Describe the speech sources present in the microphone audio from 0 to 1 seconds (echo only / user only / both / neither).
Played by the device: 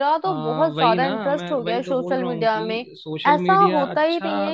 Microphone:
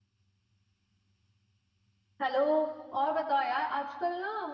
neither